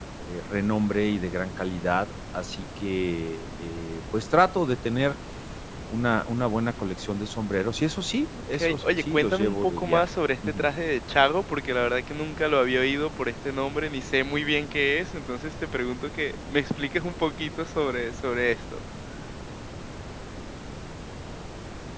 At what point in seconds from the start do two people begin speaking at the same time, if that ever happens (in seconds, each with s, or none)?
8.5 s